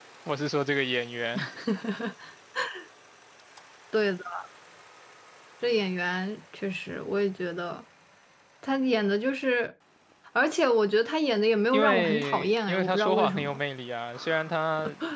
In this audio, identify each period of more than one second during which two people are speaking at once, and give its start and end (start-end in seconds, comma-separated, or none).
11.7-13.6